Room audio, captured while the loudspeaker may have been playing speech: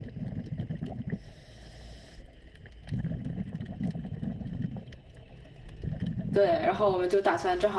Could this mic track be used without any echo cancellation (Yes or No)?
Yes